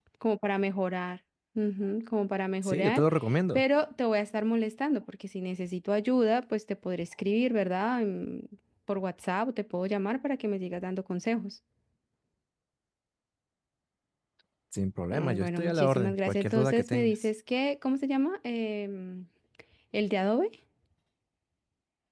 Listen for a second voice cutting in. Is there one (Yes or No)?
Yes